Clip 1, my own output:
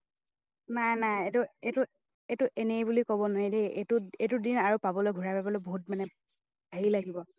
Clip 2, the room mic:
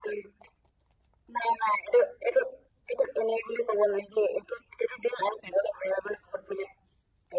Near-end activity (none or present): none